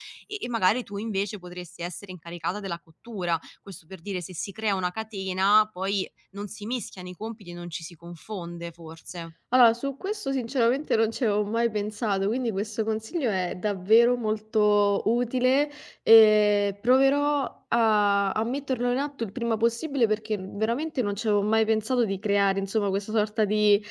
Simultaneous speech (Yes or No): No